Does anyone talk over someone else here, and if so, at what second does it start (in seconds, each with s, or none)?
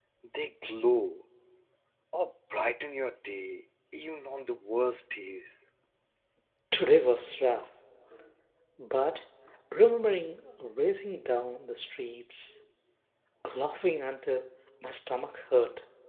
none